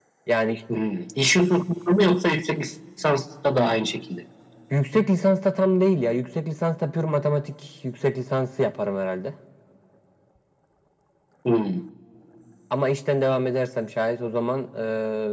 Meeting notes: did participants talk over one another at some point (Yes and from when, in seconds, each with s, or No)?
No